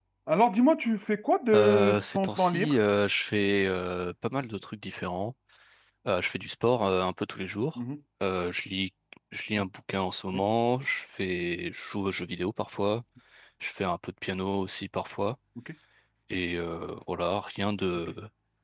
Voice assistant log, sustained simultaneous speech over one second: present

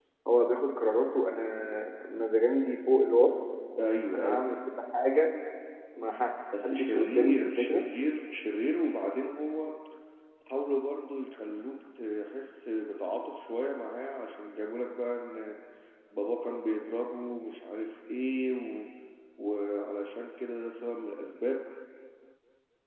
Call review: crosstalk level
present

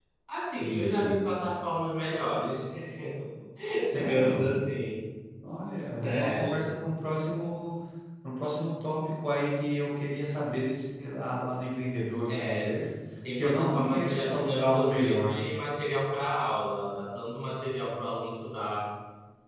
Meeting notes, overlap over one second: present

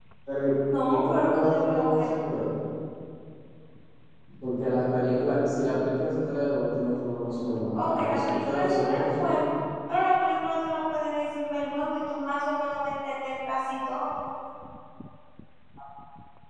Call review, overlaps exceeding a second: present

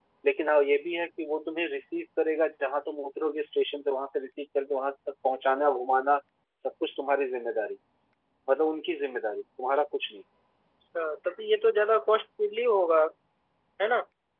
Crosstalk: none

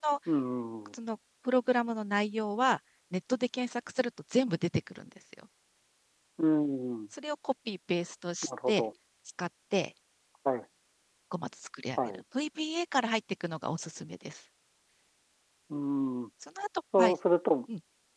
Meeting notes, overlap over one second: none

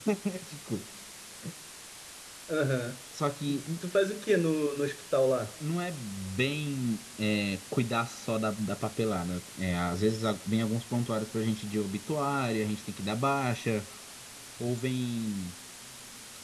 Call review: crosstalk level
none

